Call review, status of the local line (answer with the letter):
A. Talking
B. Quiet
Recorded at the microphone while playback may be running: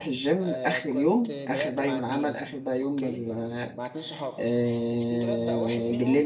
A